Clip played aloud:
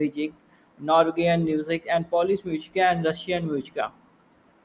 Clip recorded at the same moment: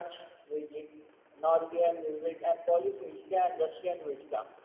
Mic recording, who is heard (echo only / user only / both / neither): echo only